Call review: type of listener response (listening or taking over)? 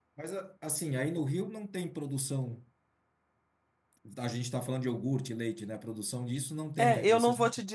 taking over